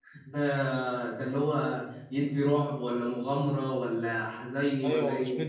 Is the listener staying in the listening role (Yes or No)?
No